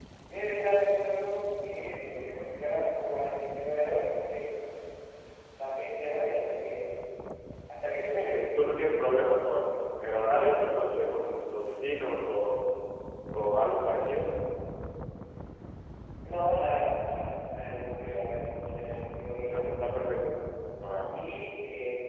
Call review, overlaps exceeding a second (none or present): none